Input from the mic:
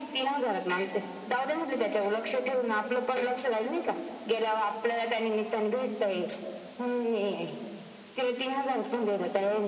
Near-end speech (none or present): none